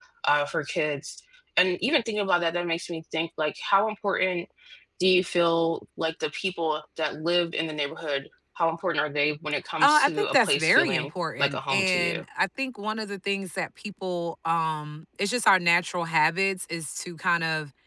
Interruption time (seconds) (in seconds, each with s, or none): 9.8 s